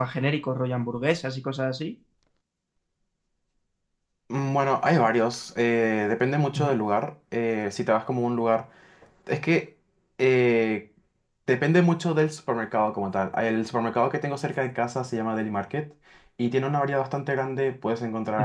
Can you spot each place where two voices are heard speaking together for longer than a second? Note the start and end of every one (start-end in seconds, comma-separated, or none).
none